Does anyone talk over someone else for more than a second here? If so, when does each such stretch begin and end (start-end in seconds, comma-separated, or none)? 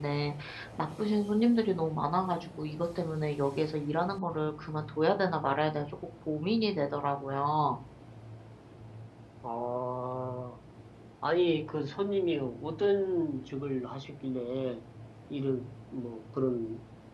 none